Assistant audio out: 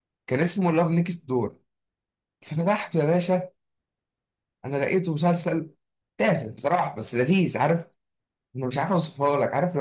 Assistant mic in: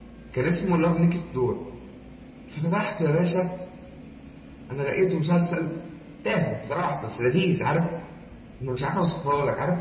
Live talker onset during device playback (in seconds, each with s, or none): none